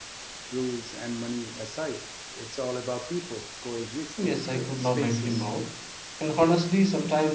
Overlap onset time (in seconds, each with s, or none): 4.2 s